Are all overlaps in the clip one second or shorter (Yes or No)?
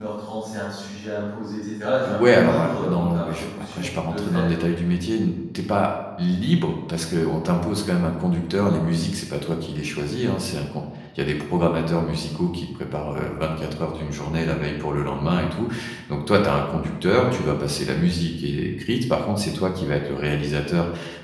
No